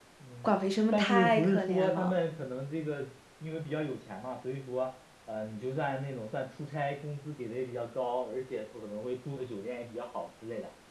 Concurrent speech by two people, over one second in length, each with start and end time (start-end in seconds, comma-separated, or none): 0.9-2.2